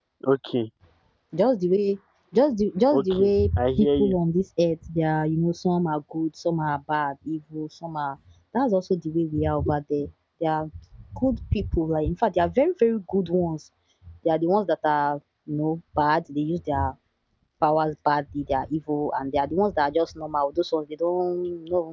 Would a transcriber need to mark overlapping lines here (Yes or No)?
Yes